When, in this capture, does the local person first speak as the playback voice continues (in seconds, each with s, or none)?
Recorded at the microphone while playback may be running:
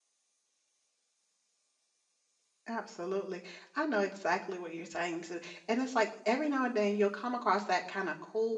2.7 s